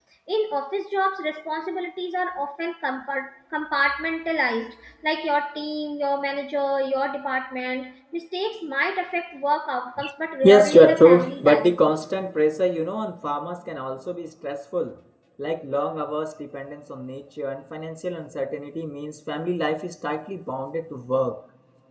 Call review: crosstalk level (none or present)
present